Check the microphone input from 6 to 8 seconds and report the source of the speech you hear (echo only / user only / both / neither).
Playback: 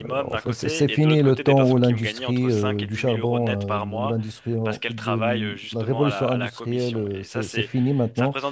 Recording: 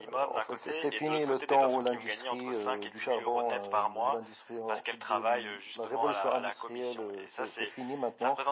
echo only